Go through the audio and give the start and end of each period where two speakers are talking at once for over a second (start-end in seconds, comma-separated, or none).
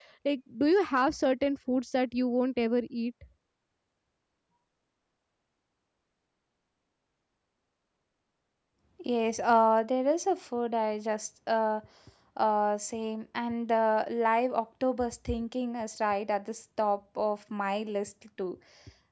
none